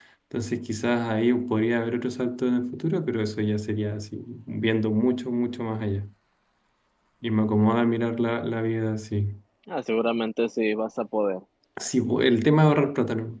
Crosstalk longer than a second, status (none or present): none